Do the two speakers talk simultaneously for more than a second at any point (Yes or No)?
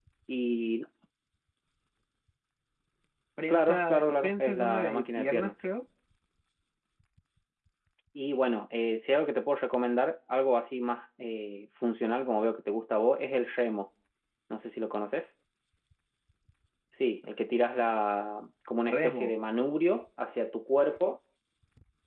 Yes